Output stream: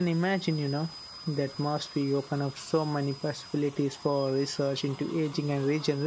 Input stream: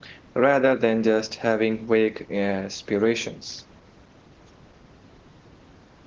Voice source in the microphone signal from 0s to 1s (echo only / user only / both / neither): user only